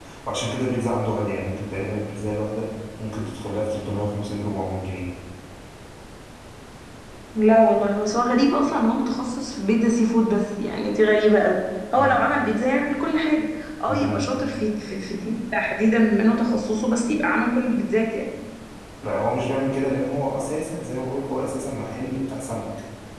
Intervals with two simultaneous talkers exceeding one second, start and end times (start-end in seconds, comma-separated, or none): none